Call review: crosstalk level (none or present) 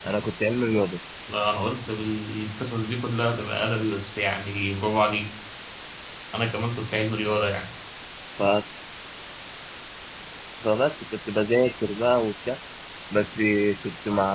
none